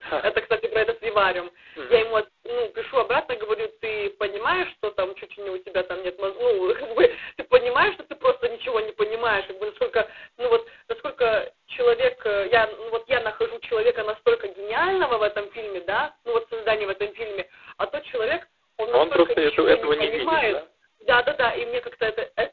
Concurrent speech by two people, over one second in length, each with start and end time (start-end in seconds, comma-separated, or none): 18.9-20.6